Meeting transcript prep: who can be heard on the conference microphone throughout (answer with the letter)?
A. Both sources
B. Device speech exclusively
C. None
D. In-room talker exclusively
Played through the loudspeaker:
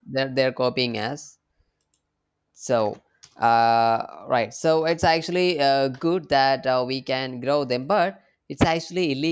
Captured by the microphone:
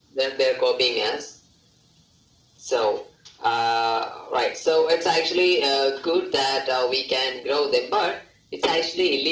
B